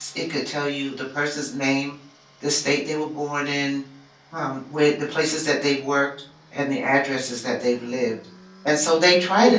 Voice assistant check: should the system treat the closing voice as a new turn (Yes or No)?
No